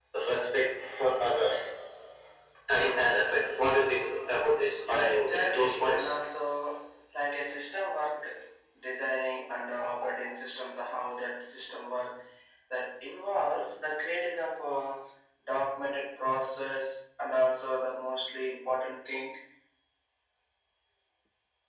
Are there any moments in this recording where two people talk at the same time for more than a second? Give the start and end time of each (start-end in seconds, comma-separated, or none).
4.9-6.1